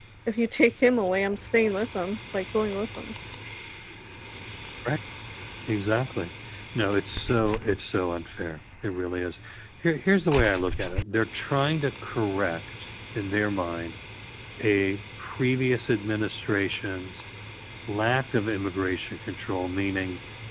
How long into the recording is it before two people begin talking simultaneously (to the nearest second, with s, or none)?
none